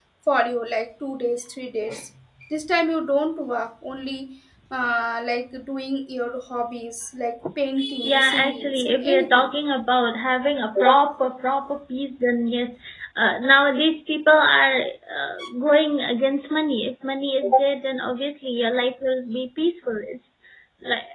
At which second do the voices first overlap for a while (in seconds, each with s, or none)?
8.0 s